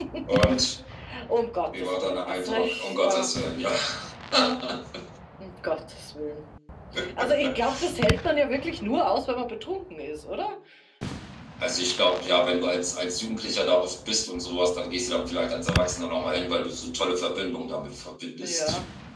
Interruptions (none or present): present